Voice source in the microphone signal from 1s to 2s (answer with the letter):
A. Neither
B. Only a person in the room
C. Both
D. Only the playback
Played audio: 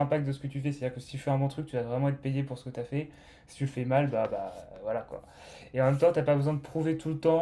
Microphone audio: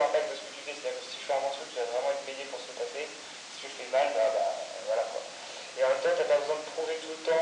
D